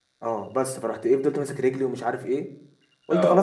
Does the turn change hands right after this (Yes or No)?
No